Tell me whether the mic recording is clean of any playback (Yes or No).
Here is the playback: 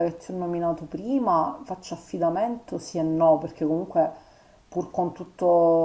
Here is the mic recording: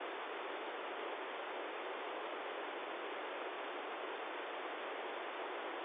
Yes